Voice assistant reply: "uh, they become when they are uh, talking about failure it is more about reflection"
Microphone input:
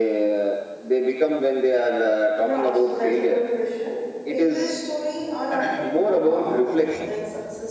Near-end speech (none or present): present